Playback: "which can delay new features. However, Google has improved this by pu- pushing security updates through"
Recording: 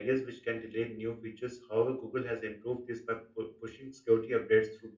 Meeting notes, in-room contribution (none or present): none